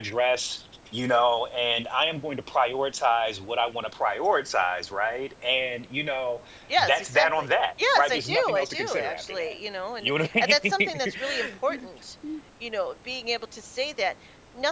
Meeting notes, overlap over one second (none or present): present